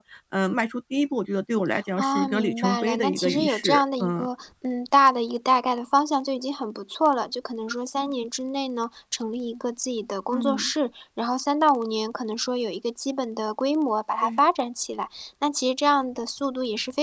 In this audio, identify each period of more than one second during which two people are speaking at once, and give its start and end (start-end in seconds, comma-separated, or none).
2.0-4.3